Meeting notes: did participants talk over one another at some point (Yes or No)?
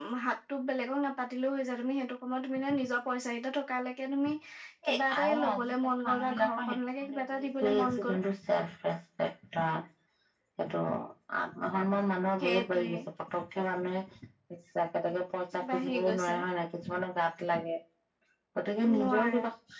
Yes